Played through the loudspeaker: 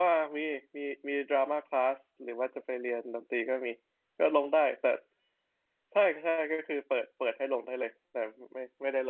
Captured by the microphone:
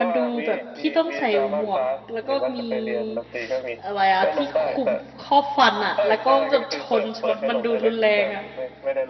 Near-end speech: present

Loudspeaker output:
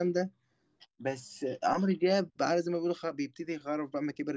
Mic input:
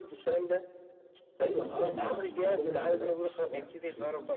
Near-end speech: present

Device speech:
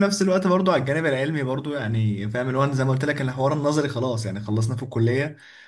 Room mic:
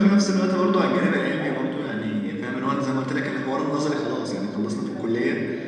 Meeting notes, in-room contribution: present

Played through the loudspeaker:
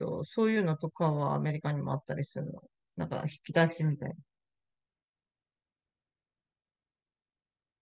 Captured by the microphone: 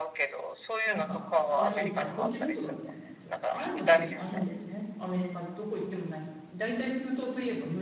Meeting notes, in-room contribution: present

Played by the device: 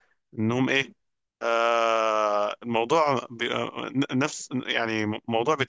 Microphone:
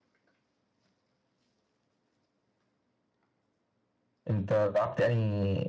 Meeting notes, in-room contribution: present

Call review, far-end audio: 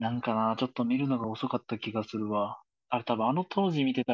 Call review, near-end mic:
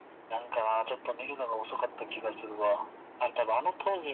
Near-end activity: none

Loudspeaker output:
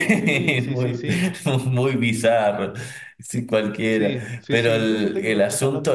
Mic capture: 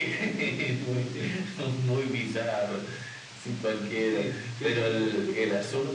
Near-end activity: none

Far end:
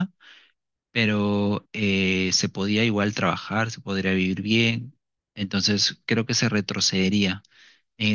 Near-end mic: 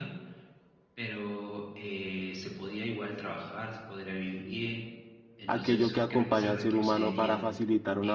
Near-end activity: present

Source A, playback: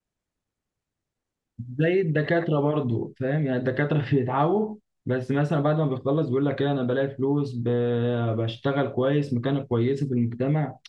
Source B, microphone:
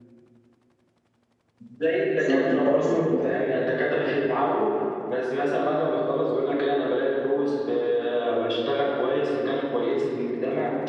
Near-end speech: present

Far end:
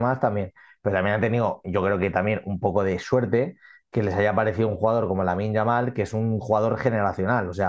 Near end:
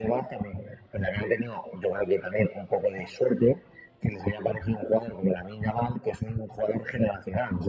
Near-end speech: none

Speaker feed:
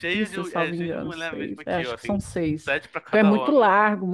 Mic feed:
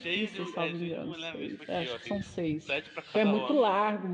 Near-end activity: none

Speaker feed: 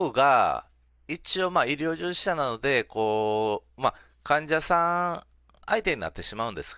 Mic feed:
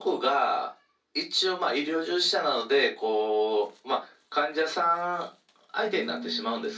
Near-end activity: present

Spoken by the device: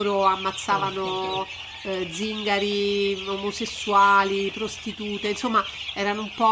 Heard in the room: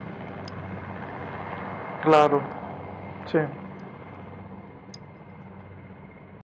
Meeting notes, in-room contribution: present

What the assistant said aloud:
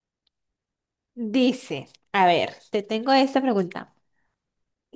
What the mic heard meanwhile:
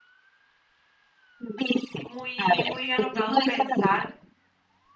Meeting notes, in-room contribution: present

